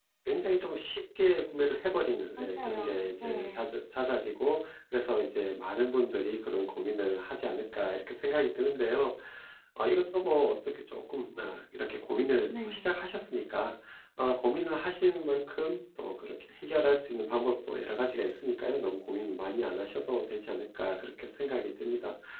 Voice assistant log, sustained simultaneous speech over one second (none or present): present